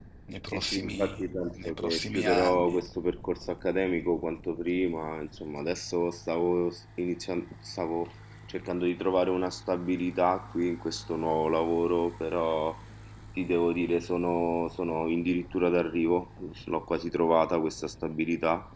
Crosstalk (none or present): present